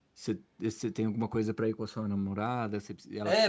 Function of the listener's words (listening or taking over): taking over